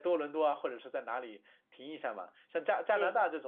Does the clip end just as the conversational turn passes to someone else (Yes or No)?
No